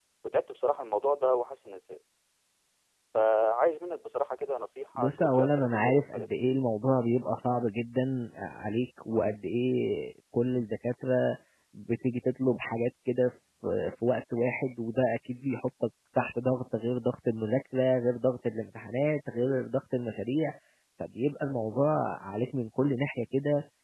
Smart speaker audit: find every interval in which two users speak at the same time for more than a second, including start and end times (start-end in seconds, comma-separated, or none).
5.0-6.4